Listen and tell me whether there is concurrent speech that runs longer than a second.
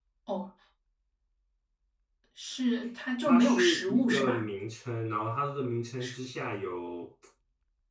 Yes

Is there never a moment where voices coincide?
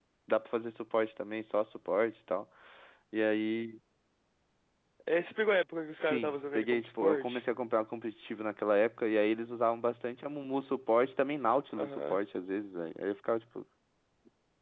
No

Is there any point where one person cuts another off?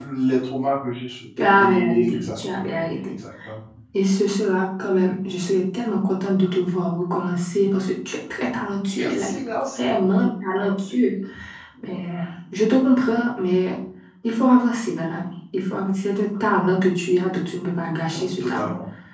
Yes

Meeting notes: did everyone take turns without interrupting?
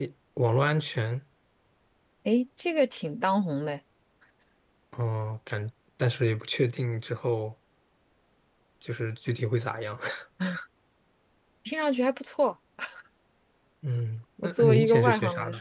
No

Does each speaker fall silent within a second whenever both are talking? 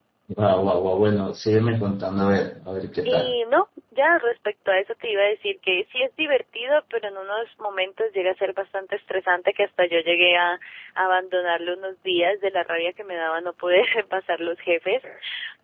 Yes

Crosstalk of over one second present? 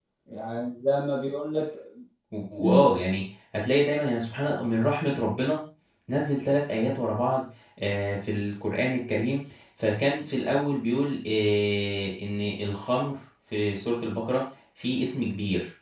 No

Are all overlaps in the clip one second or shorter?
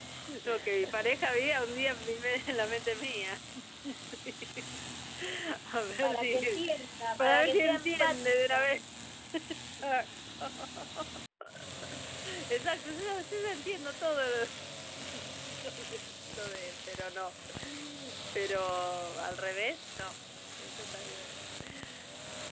No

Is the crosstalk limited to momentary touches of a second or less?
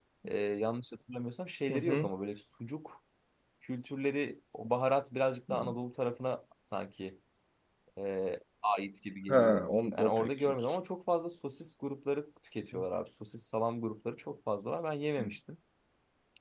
No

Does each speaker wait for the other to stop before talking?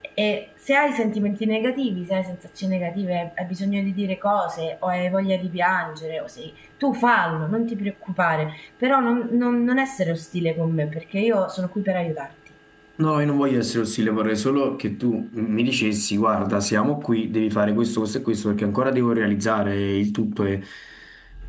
Yes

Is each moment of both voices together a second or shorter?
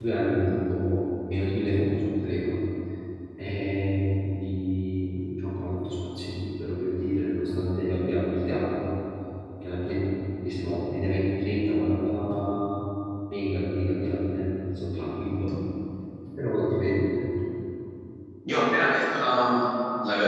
Yes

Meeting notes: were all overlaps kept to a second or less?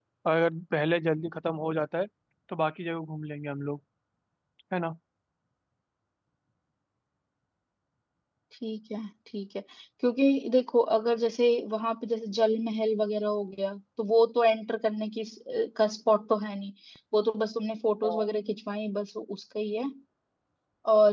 Yes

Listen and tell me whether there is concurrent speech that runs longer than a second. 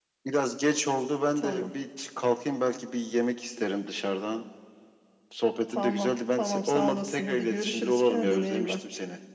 Yes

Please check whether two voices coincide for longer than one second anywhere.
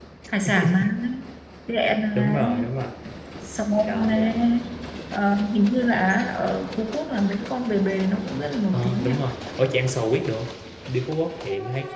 No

